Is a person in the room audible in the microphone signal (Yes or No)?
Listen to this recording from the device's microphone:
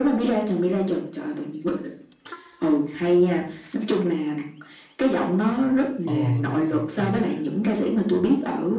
Yes